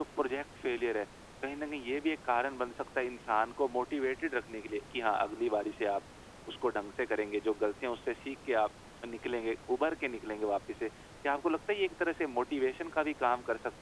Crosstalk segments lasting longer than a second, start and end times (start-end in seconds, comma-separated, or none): none